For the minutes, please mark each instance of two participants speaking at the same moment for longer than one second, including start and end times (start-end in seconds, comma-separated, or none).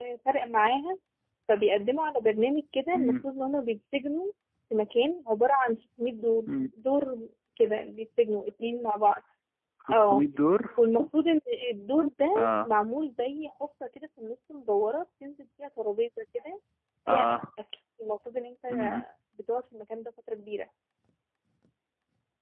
none